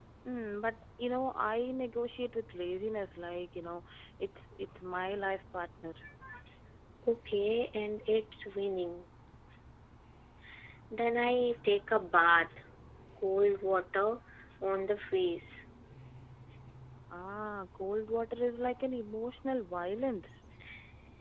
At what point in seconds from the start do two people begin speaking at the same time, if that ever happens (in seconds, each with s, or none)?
none